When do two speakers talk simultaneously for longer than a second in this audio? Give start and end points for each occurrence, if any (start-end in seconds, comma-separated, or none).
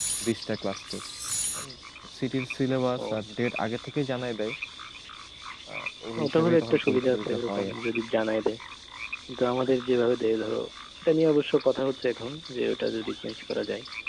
6.2-7.8